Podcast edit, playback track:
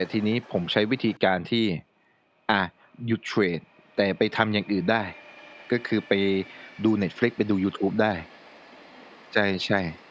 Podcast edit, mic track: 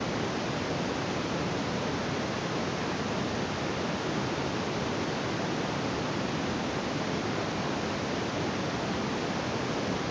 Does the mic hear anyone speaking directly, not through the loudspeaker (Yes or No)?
No